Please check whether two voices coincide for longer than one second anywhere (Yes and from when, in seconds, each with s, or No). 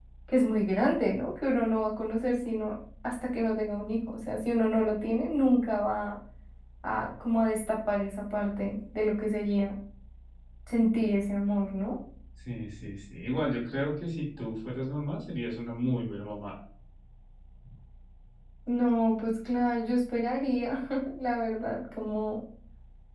No